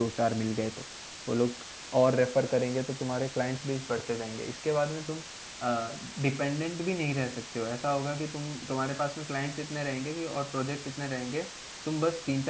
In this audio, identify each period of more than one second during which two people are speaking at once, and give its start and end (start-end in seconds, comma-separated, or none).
none